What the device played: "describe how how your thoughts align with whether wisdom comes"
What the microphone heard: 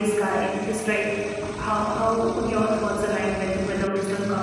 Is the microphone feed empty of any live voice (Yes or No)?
Yes